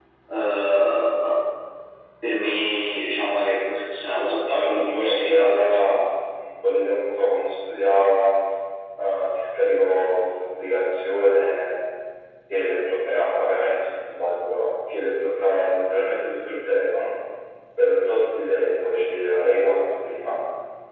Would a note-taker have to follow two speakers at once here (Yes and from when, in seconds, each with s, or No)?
Yes, from 4.5 s